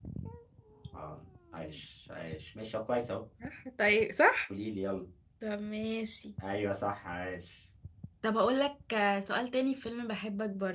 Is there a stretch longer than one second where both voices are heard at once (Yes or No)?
No